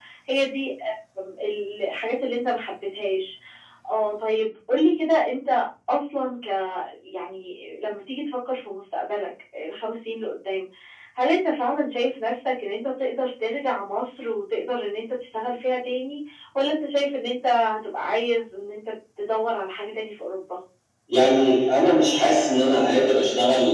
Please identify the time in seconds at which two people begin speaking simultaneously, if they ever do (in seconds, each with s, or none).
none